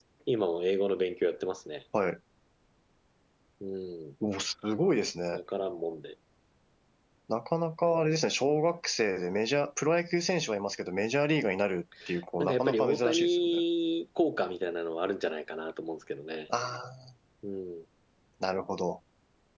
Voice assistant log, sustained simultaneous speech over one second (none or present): present